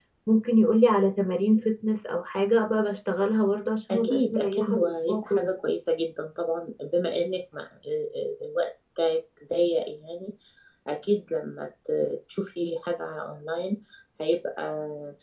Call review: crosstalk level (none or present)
present